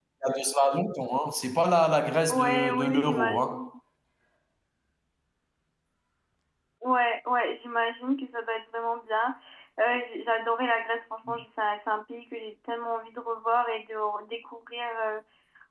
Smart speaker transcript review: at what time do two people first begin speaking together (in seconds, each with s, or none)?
2.3 s